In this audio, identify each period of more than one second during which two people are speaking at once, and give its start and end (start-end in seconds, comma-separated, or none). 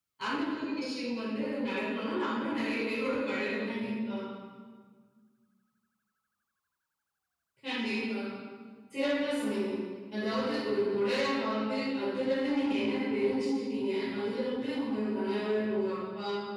none